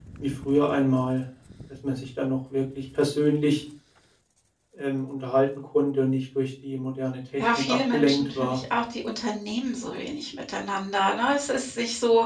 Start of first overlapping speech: 7 s

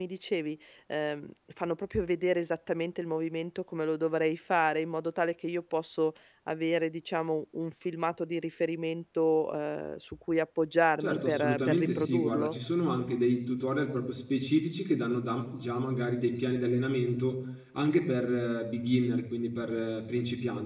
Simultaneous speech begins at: 11 s

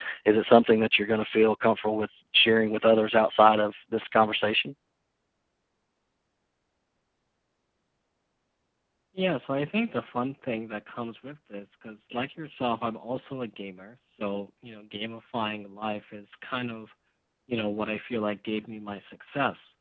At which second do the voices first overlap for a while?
none

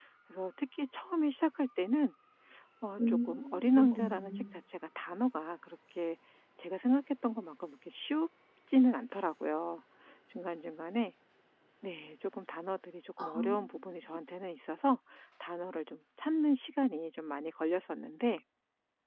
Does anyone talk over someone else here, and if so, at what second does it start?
3 s

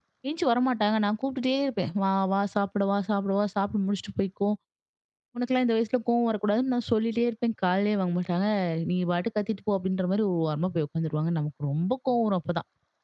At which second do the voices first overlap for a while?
none

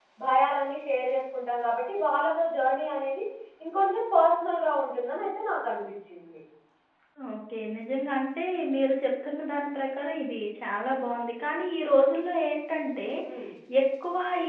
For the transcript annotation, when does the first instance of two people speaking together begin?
none

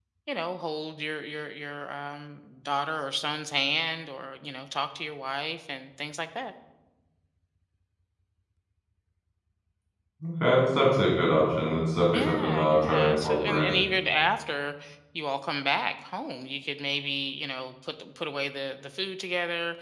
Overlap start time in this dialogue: 12 s

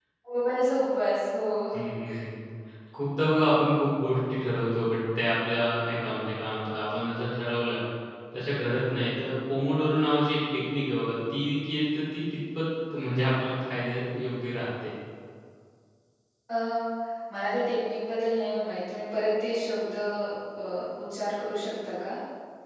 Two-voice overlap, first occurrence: none

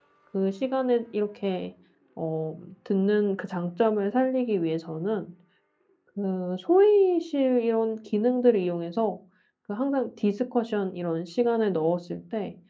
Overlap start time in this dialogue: none

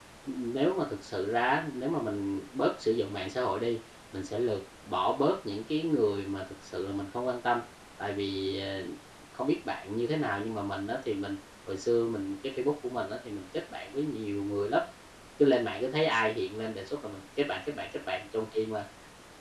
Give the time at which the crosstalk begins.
none

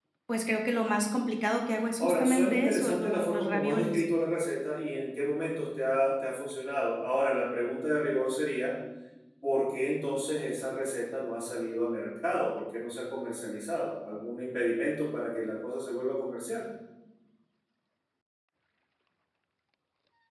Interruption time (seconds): 2 s

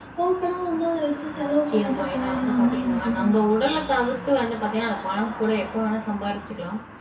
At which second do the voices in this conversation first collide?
1 s

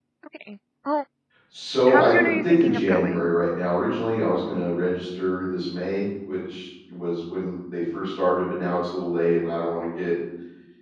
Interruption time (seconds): 2 s

